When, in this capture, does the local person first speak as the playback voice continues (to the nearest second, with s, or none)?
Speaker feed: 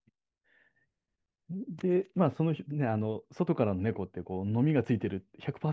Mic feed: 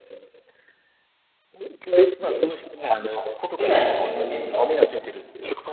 4 s